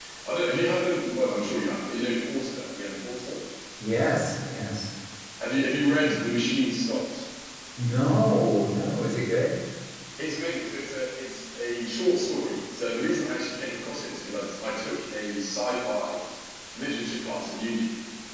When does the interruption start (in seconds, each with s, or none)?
none